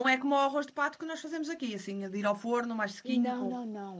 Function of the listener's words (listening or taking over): taking over